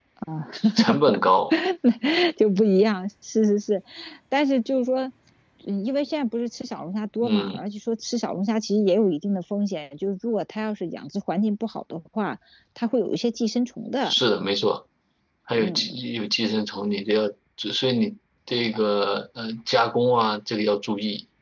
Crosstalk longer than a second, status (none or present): none